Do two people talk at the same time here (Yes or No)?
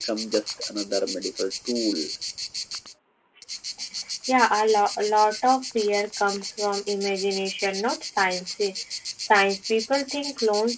No